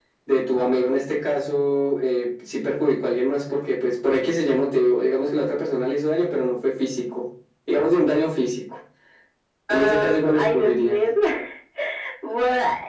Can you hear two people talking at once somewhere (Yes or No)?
Yes